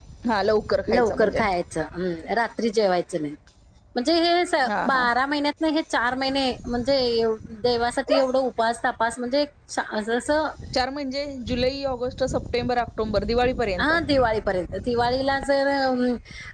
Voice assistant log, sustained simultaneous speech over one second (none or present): none